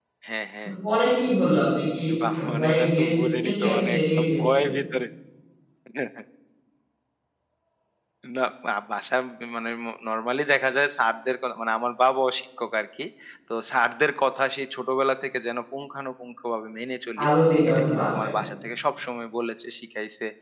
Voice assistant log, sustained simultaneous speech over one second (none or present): present